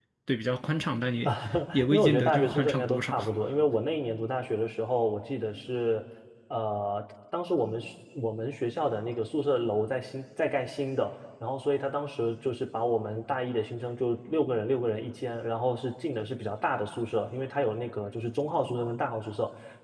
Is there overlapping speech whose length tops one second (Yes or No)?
Yes